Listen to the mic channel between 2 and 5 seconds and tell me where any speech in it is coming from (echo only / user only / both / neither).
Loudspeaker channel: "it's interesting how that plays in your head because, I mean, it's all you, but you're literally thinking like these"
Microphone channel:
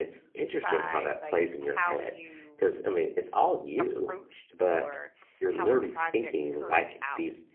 both